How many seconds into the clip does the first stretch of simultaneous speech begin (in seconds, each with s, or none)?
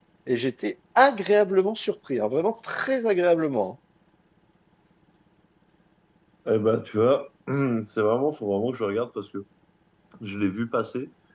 none